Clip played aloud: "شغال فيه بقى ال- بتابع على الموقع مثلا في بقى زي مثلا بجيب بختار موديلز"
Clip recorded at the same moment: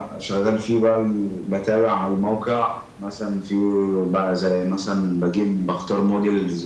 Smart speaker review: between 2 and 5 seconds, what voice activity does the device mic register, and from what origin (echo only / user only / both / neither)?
echo only